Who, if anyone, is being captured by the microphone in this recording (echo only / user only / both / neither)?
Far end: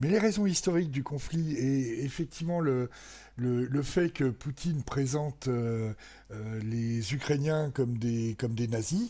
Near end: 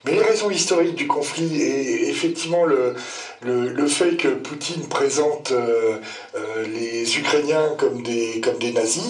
echo only